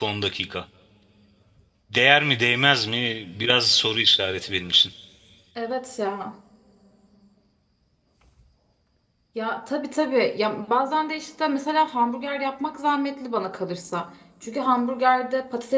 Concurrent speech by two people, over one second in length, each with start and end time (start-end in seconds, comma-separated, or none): none